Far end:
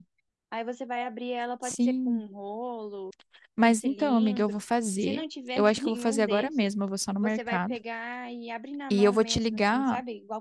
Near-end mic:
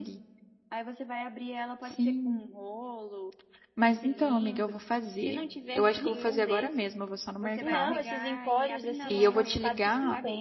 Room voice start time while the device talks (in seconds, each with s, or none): 7.6 s